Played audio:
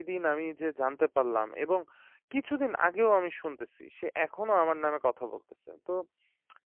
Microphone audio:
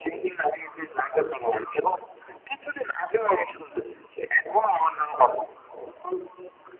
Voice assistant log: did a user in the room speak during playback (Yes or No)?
No